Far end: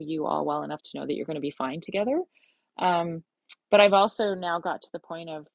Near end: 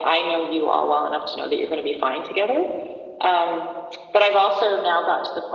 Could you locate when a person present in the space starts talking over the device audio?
none

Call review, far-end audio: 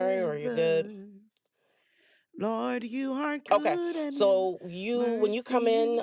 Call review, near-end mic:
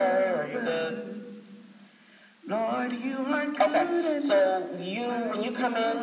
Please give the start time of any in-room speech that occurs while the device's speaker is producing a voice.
none

